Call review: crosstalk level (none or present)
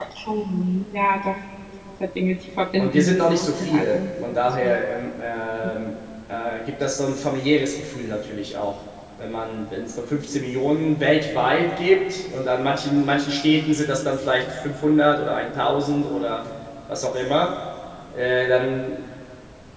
present